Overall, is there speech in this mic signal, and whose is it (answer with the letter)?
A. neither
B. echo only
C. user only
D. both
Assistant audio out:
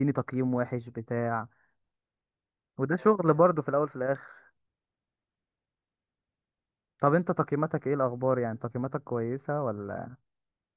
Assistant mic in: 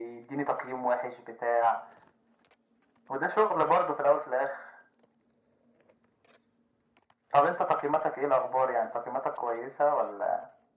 B